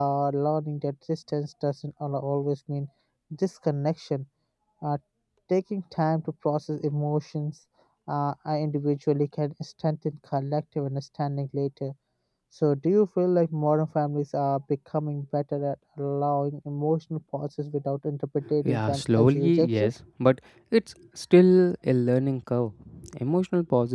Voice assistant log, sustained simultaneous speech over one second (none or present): present